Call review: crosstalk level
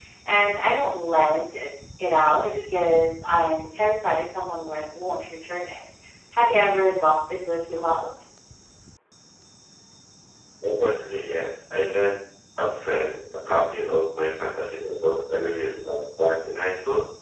none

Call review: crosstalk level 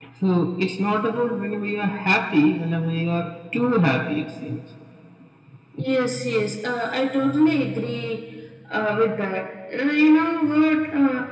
none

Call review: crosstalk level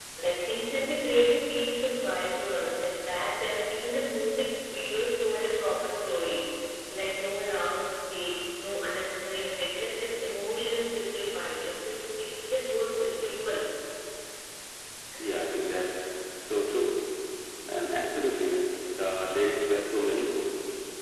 none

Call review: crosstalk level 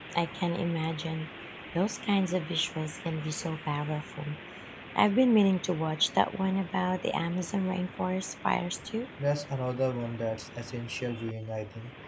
none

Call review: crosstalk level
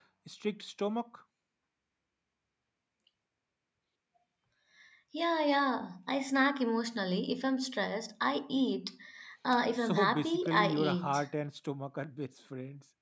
present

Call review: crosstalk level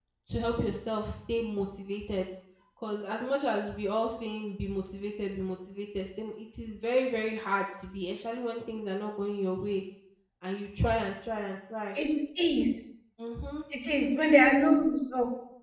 none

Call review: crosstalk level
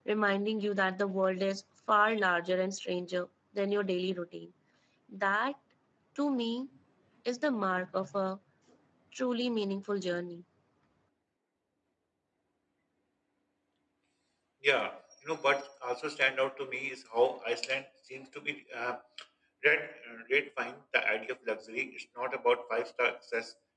none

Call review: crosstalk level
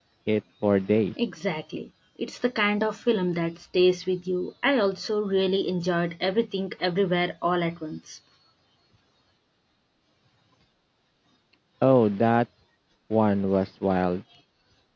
none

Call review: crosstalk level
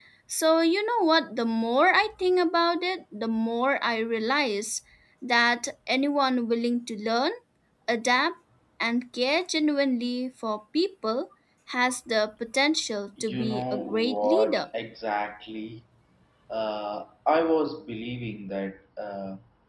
present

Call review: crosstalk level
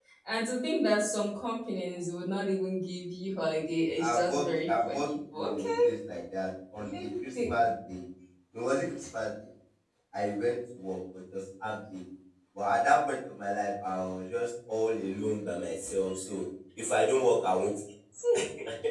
present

